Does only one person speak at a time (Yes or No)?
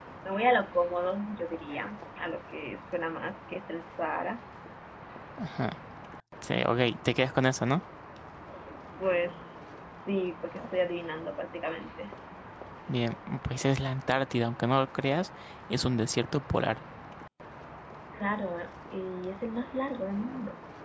Yes